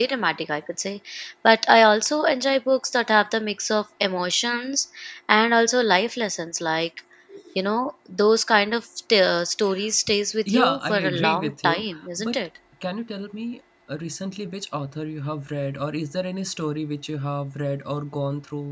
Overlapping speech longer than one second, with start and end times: 10.5-12.4

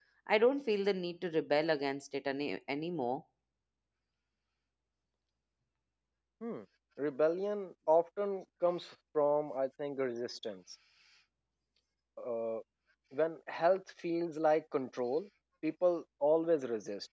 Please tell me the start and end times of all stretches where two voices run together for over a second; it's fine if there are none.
none

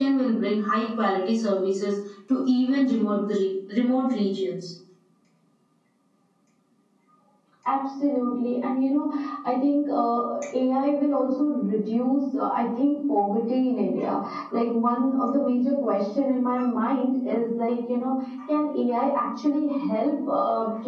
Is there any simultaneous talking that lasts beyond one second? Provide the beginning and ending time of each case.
none

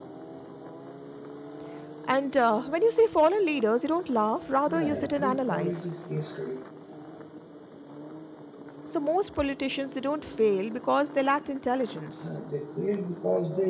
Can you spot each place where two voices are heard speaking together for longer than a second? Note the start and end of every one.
4.7-5.9

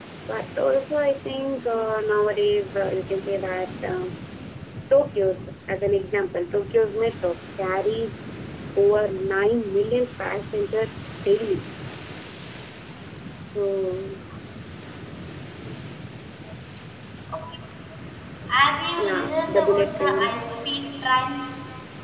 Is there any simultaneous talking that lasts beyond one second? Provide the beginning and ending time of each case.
19.0-20.4

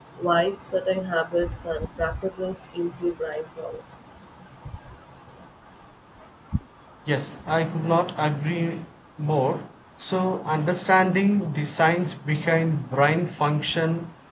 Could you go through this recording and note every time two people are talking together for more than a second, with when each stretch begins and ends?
none

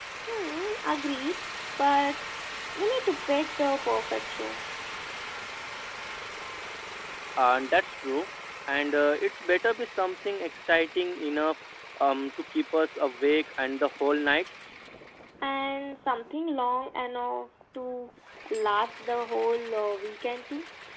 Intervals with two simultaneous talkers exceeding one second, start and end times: none

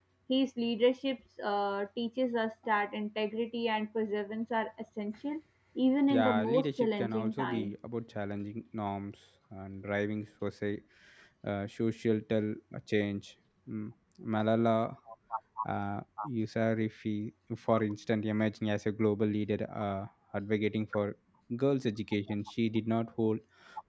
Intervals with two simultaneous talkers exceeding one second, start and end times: 6.1-7.7

